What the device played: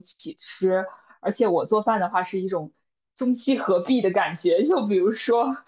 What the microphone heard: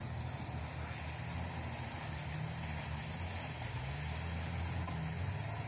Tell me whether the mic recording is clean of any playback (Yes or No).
Yes